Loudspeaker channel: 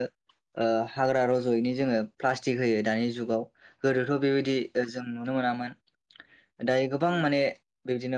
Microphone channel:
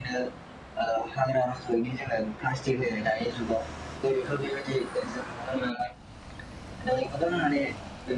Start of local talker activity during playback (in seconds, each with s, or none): none